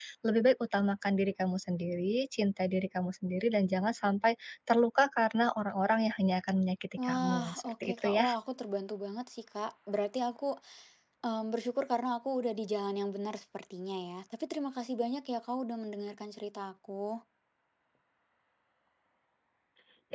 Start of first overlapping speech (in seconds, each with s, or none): 7.0 s